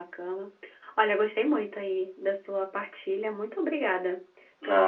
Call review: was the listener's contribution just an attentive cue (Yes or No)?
No